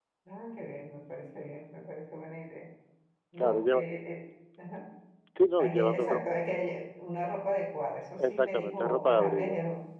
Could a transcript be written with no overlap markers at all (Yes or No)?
No